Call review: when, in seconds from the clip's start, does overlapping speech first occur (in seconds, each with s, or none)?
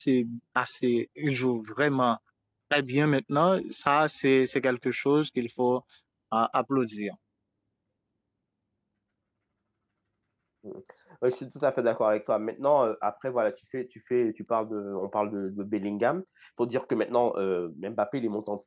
none